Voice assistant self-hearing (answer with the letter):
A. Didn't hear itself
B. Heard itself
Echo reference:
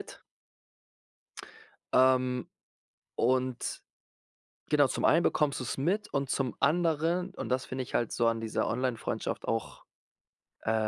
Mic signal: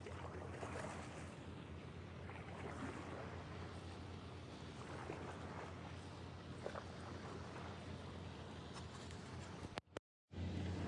A